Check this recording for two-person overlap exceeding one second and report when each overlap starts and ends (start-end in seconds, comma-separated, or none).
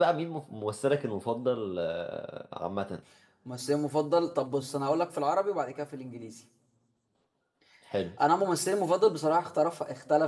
none